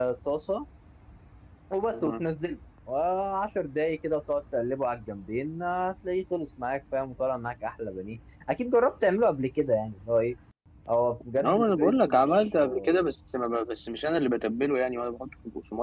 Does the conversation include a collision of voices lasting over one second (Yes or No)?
Yes